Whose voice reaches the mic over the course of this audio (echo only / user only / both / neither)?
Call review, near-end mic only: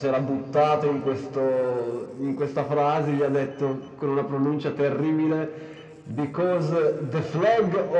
echo only